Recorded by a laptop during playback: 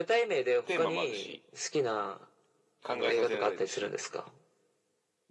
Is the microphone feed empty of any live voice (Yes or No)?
Yes